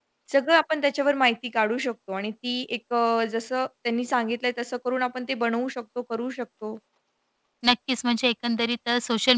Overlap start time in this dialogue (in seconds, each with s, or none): none